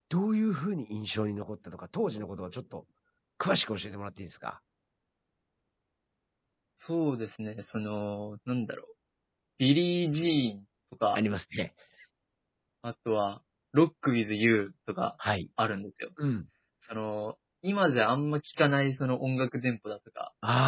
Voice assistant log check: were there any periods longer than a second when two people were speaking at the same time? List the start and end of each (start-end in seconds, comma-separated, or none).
none